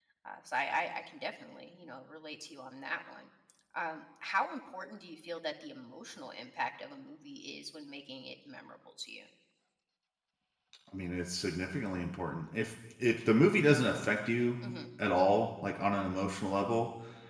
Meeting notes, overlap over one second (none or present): none